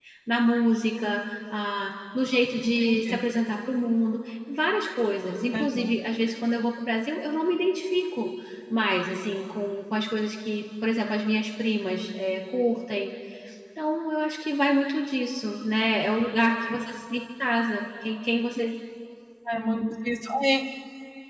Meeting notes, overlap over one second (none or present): none